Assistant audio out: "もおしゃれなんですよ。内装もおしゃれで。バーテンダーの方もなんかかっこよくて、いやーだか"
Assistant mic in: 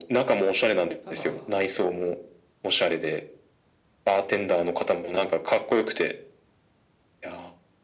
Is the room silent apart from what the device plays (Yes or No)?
No